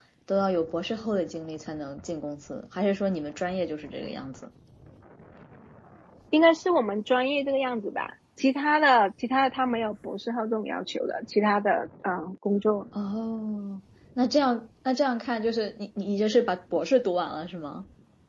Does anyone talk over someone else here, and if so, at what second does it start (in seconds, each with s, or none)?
none